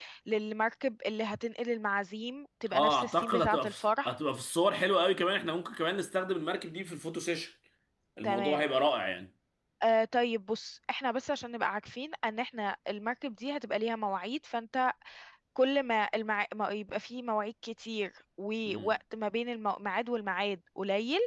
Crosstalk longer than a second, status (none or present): present